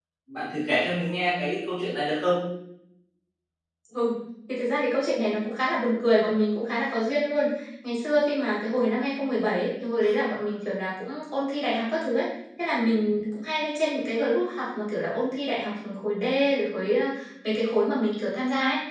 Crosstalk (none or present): none